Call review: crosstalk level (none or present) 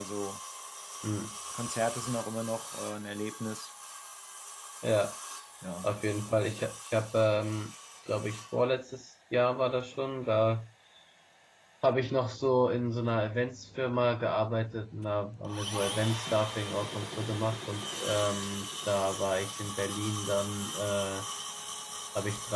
none